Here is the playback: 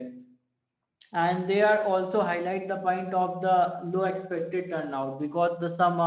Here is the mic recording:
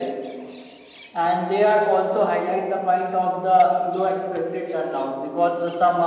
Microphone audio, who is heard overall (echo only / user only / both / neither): echo only